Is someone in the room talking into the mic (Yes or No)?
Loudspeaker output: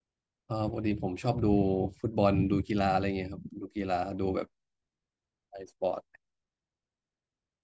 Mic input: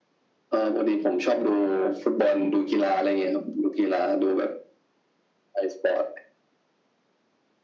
No